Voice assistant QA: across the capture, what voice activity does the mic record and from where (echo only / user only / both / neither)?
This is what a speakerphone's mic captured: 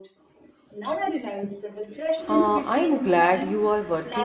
both